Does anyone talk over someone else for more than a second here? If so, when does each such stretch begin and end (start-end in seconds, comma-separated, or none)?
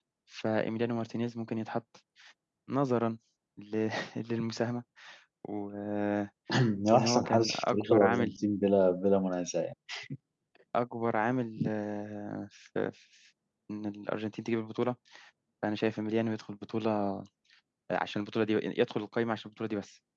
6.9-8.3